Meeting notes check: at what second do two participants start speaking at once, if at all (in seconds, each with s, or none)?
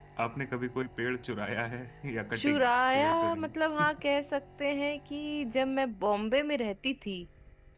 2.3 s